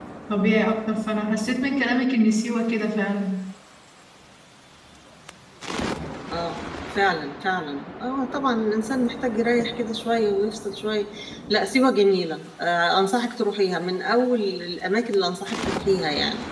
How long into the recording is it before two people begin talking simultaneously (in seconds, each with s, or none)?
none